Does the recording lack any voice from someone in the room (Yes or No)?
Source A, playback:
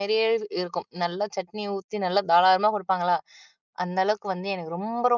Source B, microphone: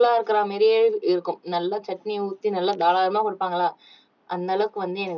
Yes